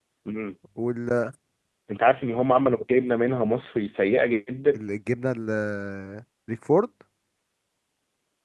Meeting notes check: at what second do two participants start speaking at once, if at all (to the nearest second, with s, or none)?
none